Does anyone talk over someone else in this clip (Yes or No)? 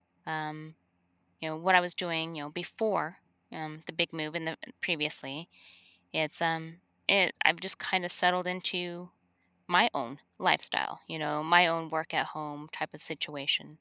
No